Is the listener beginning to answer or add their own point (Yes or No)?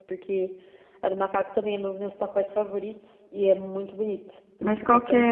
Yes